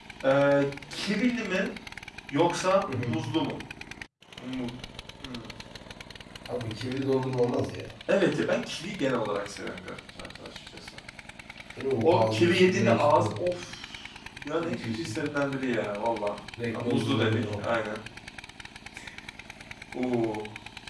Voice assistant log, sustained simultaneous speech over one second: present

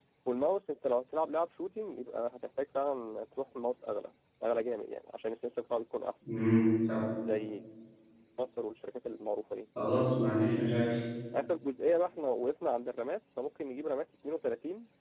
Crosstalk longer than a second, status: none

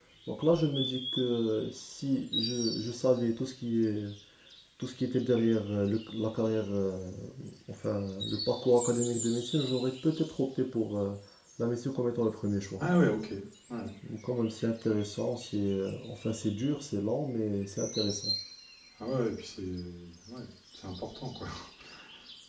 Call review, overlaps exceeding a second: none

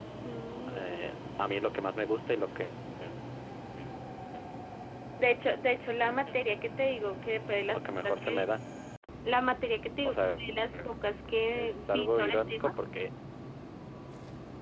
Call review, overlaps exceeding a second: present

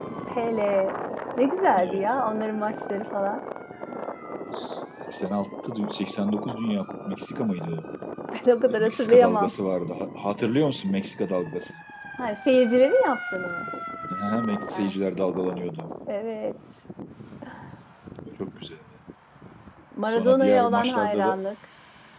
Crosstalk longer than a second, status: present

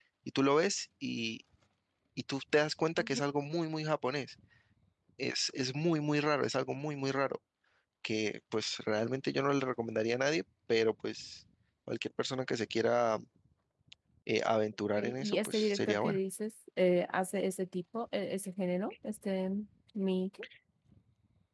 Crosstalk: present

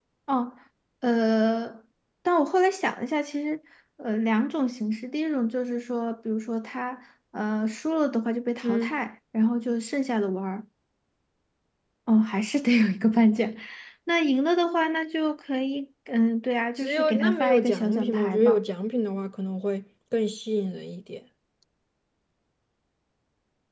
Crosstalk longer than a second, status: present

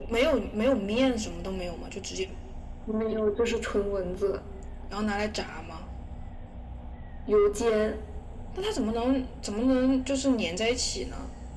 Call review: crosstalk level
none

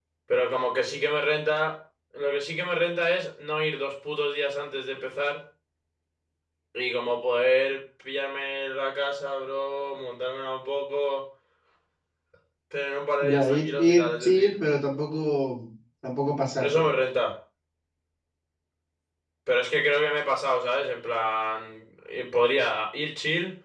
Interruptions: present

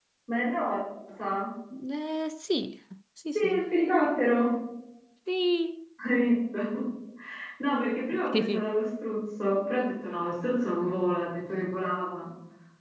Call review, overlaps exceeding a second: none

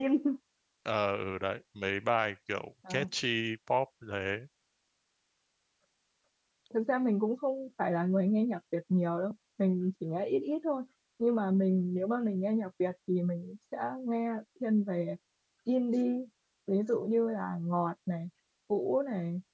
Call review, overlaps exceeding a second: none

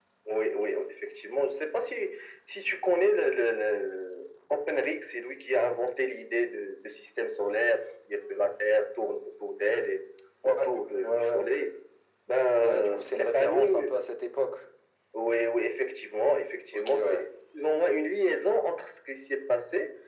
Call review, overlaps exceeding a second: present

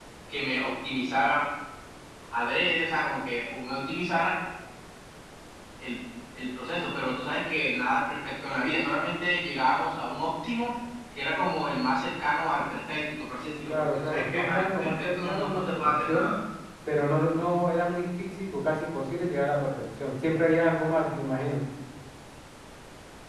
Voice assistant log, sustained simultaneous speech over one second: present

